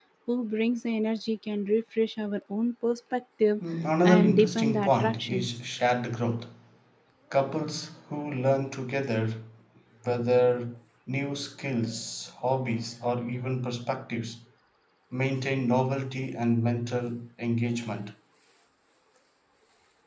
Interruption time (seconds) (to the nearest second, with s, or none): 4 s